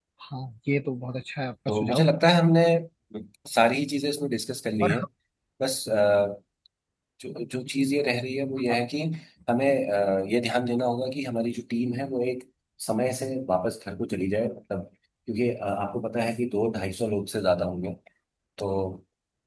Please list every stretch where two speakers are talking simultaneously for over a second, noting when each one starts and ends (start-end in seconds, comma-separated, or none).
none